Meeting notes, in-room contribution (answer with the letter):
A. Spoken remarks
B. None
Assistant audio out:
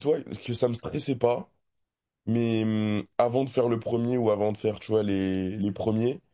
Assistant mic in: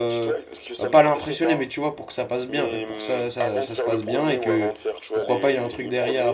A